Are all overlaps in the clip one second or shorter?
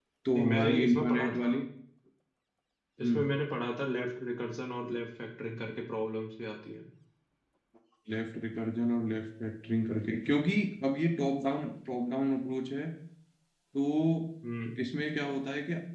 No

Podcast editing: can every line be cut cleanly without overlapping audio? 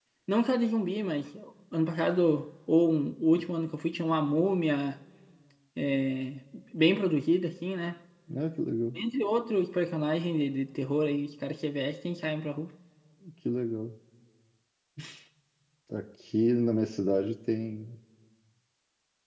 Yes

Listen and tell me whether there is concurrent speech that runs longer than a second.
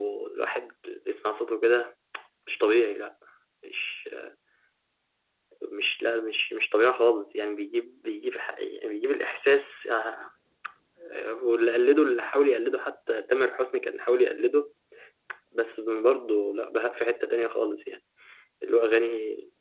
No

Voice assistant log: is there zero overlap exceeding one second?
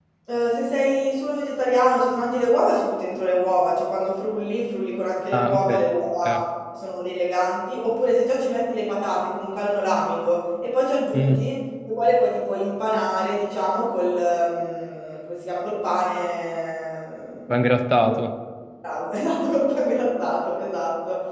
Yes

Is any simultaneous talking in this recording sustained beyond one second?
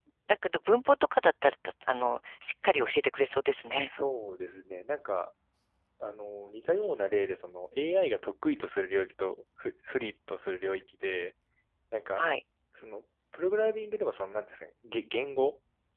No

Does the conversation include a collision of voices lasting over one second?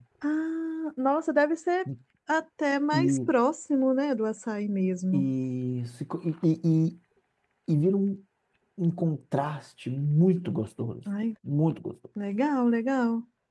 No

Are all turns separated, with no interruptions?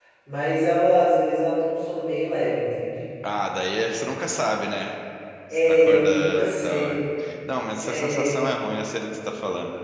No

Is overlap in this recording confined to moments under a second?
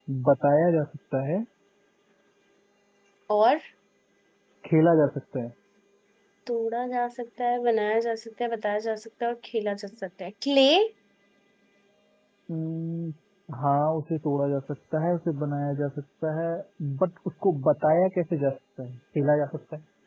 Yes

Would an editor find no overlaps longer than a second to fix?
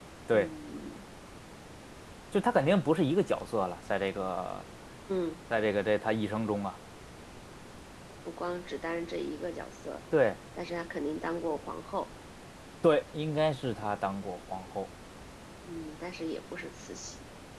Yes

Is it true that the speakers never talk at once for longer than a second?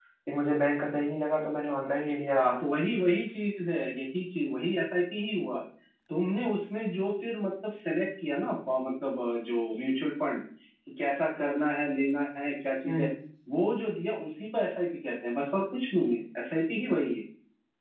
Yes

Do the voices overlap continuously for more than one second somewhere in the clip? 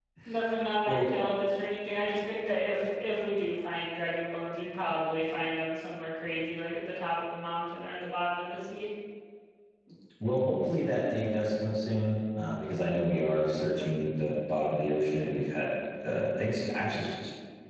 No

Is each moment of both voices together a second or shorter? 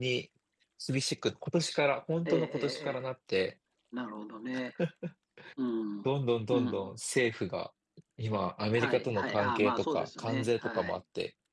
No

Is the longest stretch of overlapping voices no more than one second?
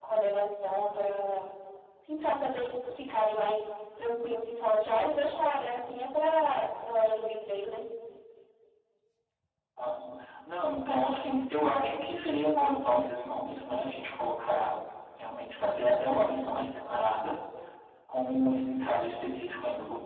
Yes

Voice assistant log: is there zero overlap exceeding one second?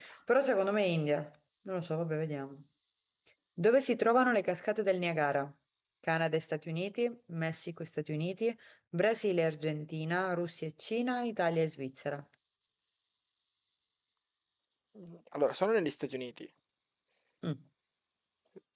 Yes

